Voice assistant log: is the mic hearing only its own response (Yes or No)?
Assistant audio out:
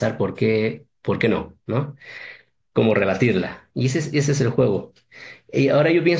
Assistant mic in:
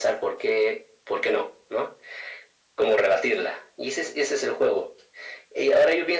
Yes